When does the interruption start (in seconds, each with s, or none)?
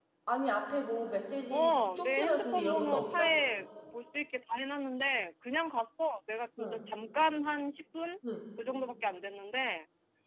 1.5 s